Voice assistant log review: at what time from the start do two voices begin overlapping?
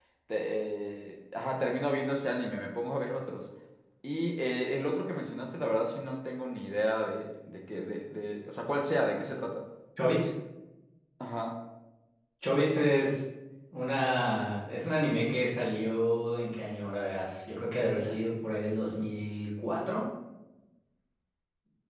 none

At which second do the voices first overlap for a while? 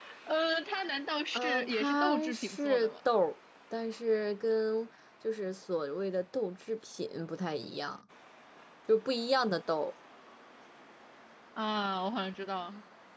1.3 s

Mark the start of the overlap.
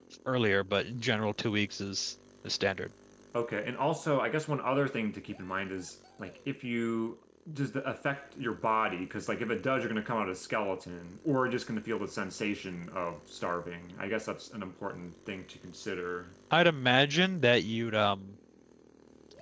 none

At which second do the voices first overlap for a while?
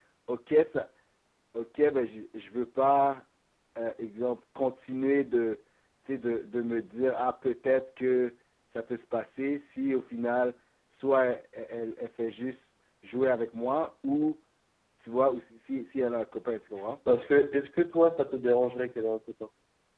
none

